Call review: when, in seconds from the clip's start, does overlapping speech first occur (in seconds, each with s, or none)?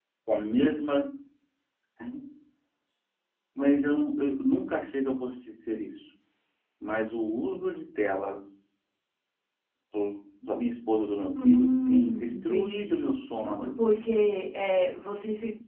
11.3 s